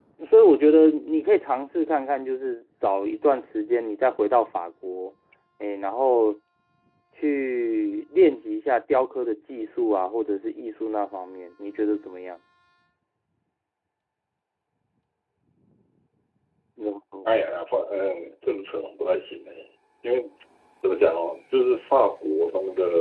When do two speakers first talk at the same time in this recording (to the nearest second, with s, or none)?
none